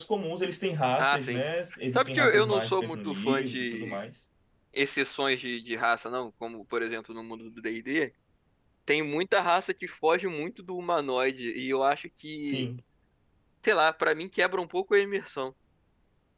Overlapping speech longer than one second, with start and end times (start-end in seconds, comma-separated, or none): 1.9-4.0